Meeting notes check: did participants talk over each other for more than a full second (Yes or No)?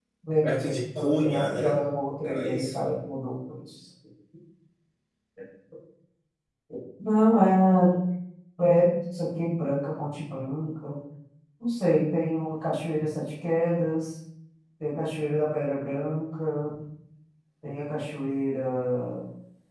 Yes